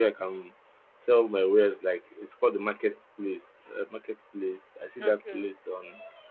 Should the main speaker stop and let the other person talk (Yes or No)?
No